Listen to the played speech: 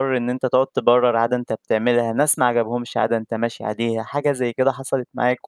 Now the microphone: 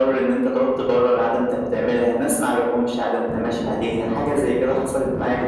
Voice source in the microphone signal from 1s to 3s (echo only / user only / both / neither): echo only